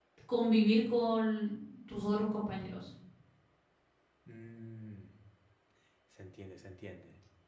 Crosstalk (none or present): none